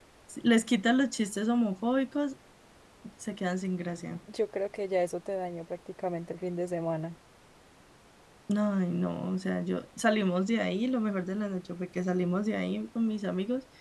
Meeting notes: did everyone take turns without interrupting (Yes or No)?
Yes